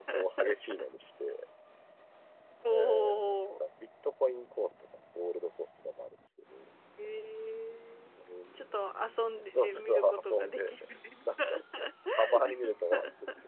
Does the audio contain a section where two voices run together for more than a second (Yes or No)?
Yes